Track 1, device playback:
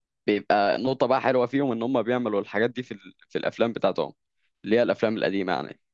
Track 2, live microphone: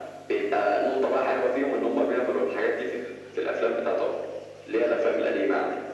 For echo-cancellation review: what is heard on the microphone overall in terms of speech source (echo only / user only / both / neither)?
echo only